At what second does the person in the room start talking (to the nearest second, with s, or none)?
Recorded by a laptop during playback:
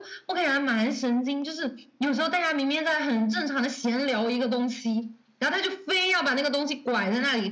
none